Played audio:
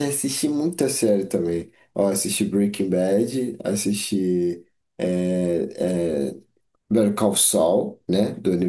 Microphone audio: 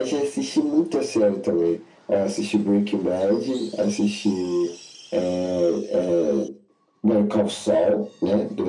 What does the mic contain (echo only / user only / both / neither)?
echo only